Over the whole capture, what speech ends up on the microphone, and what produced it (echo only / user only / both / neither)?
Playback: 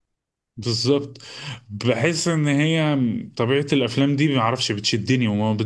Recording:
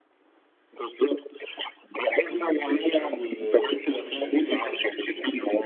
both